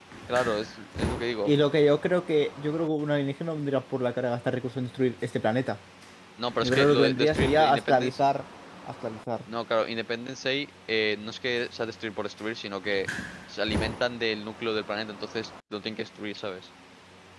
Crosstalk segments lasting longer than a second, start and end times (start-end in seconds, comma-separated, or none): 6.6-8.2